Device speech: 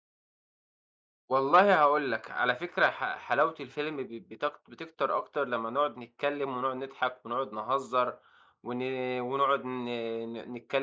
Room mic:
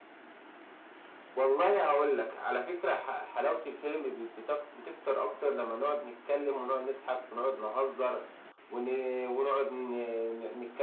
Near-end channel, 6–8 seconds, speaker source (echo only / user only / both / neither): echo only